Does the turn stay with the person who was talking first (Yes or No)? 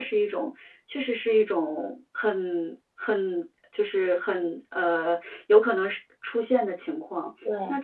Yes